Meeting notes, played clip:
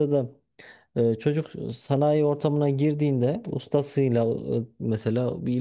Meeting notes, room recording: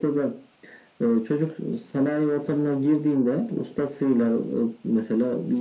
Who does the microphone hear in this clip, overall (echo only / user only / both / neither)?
echo only